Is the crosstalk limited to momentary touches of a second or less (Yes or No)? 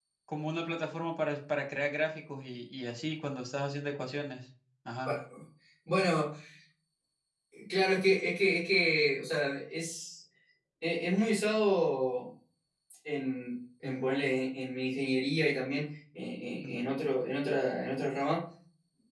Yes